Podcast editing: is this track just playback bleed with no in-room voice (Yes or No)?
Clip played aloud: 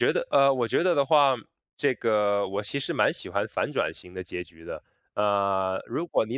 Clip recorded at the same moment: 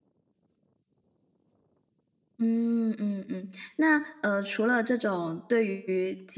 No